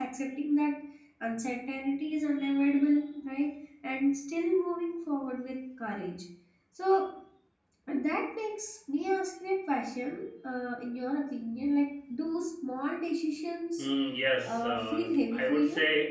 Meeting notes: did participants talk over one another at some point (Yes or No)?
Yes